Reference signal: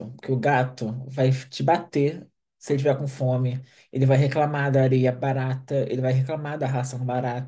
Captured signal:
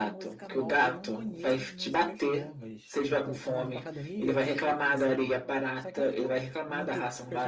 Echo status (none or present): present